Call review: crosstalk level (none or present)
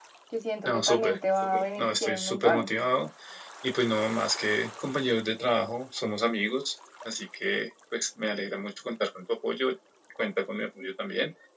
present